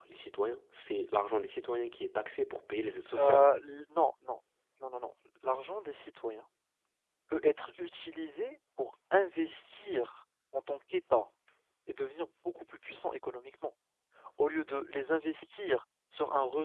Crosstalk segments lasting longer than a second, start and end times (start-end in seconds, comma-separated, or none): none